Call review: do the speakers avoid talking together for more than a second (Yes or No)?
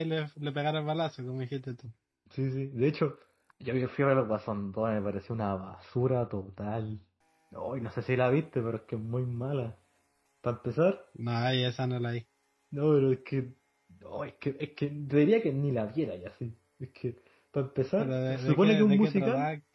No